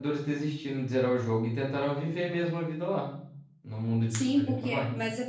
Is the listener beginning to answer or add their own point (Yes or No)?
Yes